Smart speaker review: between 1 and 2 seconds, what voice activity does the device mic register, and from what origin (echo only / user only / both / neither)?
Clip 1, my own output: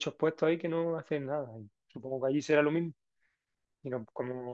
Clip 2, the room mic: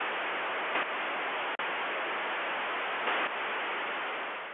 neither